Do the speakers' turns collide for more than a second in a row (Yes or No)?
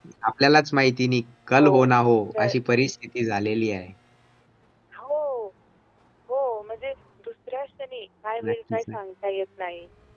No